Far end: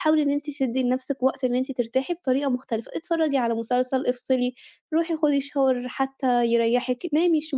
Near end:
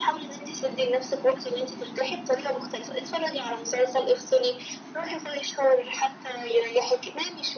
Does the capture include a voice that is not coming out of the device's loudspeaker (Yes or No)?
No